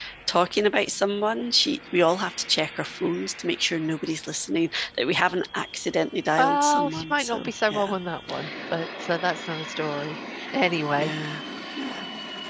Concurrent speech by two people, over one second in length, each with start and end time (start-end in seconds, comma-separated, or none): 6.4-8.0